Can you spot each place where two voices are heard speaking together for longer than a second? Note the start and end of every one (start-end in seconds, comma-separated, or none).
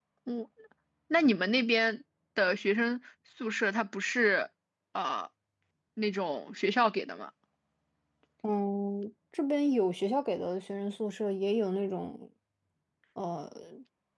none